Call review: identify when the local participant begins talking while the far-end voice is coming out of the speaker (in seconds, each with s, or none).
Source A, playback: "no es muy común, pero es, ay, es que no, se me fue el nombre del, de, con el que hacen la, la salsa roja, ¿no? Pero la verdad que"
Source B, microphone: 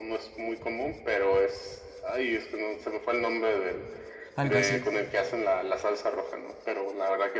4.3 s